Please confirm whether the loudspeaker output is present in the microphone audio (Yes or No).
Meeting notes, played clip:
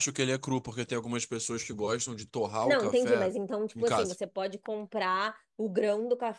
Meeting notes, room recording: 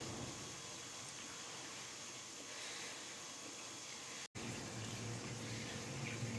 No